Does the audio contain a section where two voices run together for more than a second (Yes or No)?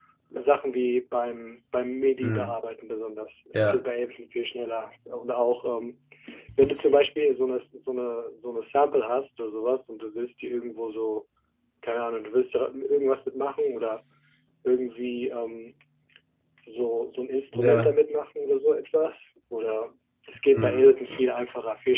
No